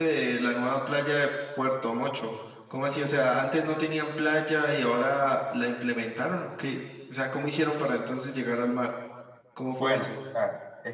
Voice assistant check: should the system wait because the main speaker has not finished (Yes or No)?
No